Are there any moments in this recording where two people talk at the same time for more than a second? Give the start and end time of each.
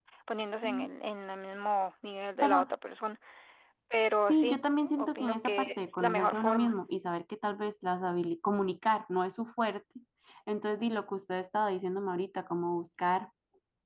5.0-6.7

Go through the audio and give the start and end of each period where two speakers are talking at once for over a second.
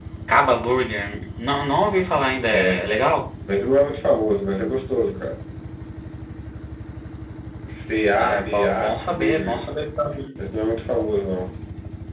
8.2-9.6

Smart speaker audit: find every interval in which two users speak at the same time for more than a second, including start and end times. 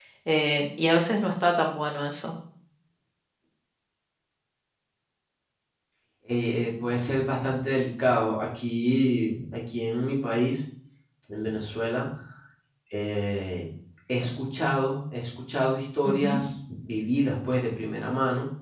none

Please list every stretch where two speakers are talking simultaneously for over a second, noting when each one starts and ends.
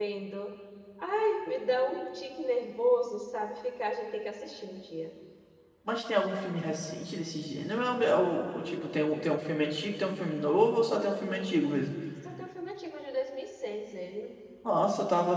none

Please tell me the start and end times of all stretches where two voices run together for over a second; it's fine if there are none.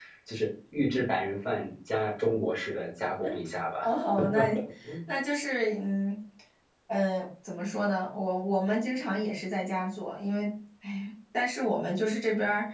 none

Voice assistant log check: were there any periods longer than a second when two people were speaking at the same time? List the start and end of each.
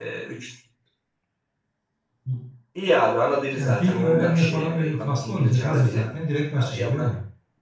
3.5-6.0

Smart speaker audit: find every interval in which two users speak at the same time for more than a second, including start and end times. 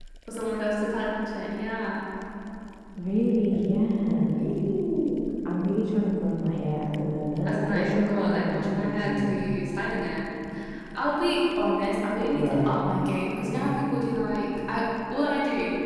7.5-9.4

